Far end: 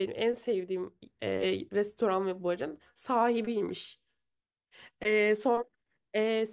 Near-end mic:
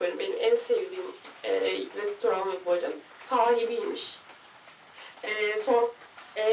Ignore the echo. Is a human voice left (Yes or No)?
No